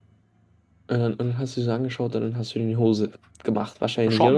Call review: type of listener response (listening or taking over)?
taking over